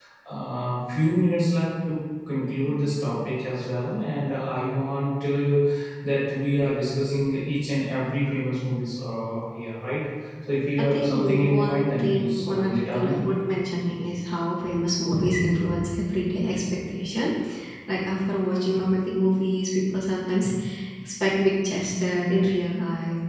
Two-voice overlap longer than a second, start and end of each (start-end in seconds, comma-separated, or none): 10.8-13.2